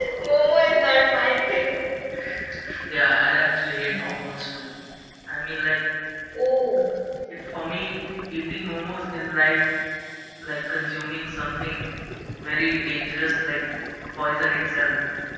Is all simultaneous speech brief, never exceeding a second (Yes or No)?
Yes